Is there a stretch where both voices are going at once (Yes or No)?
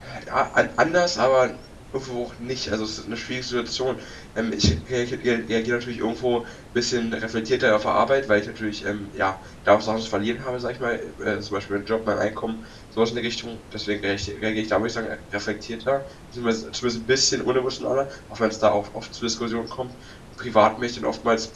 No